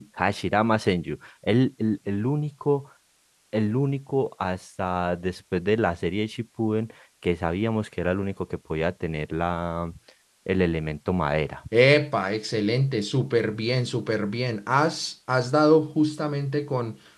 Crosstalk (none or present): none